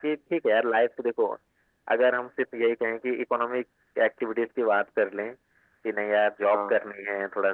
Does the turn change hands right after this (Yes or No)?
No